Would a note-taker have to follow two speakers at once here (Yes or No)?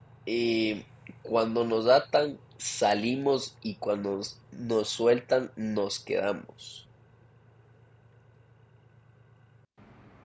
No